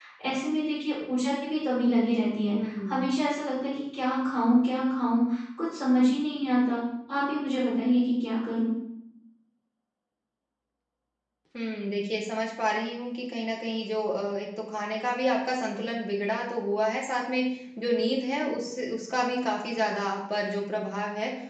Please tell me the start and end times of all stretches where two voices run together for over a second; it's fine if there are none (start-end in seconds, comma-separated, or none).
none